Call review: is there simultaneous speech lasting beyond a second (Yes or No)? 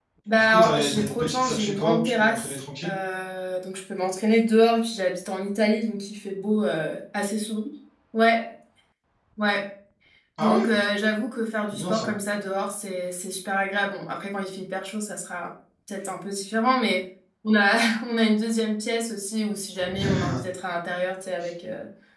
Yes